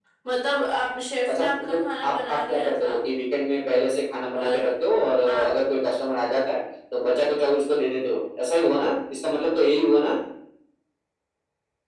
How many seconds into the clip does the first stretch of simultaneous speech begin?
1.3 s

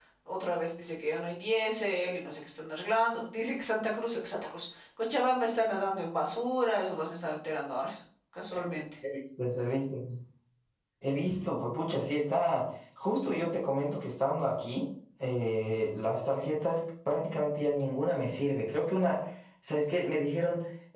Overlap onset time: none

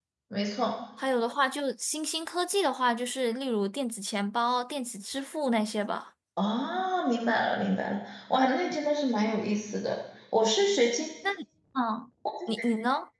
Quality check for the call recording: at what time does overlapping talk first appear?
none

